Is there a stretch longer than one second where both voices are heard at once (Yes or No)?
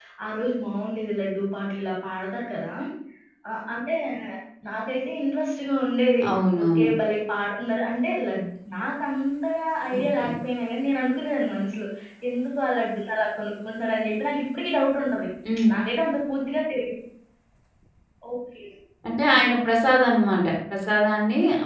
No